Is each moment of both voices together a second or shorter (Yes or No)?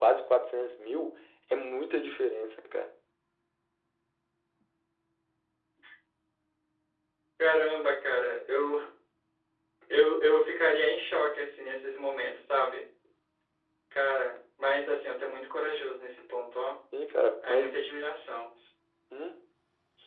Yes